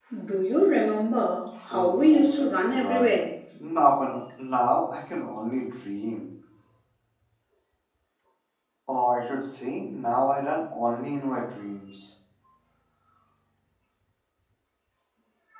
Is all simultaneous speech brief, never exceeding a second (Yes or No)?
No